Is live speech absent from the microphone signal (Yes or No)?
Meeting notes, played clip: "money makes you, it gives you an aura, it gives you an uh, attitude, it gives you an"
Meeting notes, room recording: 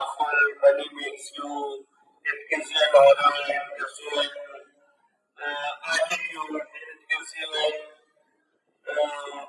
Yes